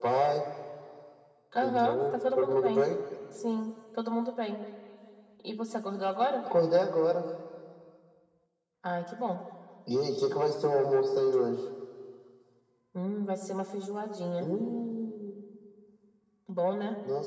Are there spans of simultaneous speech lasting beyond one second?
Yes, from 1.6 s

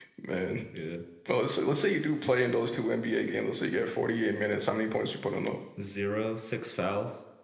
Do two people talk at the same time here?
No

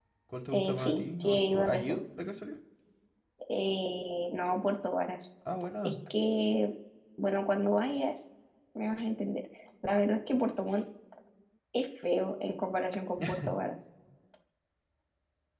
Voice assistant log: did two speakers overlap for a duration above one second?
Yes, from 0.5 s

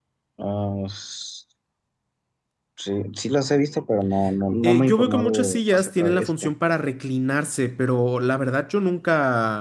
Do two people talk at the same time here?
Yes, from 4.6 s

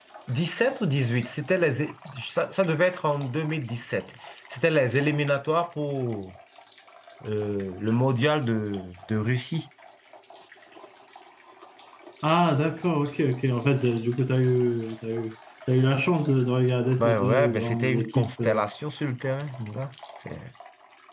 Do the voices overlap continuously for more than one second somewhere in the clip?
Yes, from 17.0 s

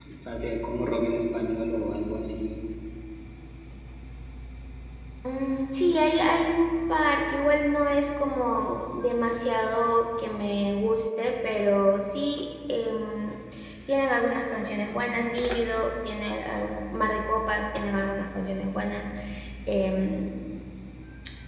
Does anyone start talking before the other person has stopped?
No

